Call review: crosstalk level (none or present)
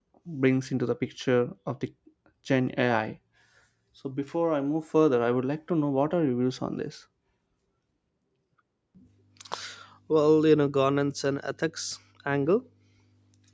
none